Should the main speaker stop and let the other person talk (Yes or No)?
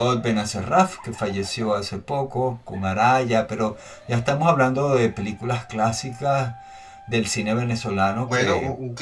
Yes